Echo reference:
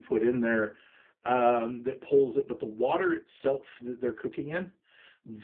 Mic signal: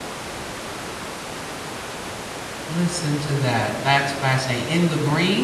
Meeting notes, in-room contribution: present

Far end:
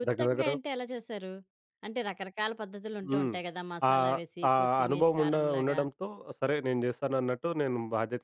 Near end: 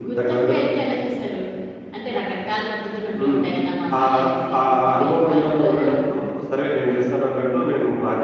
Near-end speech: none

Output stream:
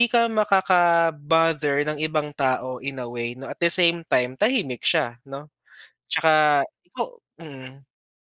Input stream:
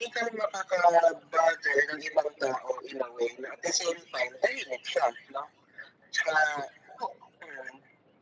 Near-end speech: none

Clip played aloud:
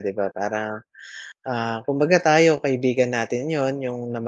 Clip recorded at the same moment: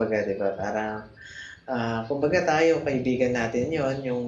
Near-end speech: none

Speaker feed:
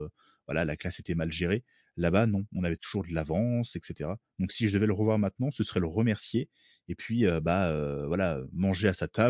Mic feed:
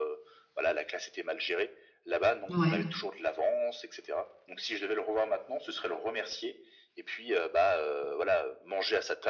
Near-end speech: present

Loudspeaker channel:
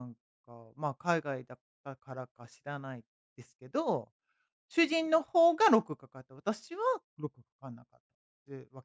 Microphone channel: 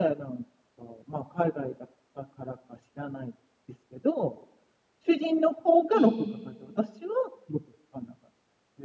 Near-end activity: present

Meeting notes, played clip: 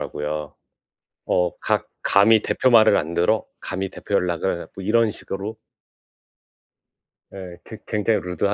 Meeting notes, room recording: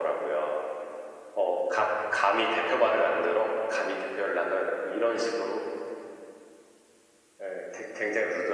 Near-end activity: none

